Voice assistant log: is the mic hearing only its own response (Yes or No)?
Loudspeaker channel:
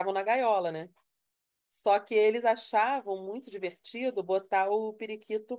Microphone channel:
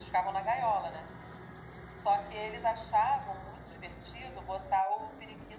Yes